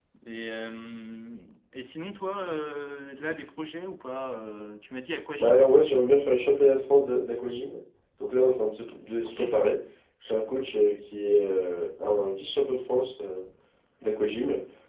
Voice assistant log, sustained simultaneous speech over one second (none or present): none